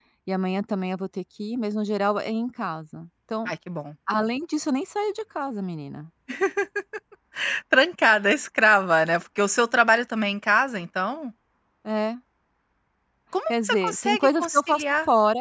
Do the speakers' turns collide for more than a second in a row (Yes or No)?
Yes